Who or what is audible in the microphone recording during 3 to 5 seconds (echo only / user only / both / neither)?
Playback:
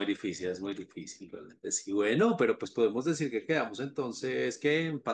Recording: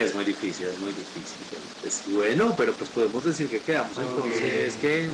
both